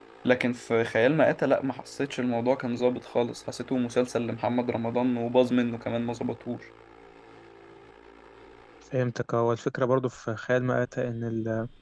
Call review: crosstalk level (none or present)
none